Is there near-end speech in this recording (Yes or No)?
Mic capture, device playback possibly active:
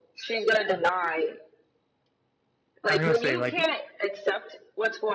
Yes